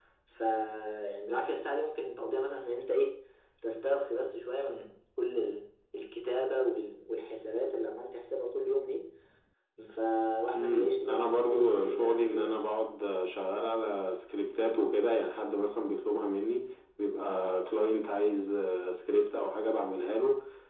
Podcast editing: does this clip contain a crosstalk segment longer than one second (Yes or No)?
Yes